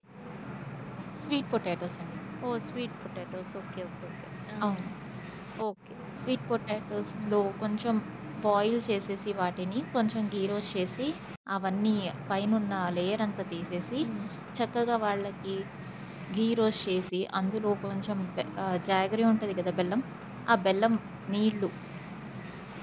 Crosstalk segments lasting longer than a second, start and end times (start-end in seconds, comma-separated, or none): none